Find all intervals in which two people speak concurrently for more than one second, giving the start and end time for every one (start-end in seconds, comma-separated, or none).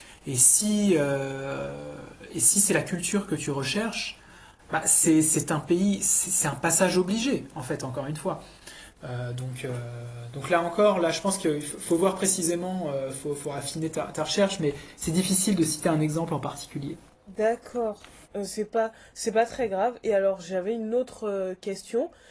none